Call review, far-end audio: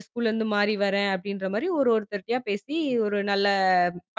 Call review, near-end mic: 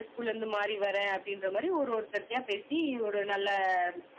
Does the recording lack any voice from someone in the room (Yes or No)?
Yes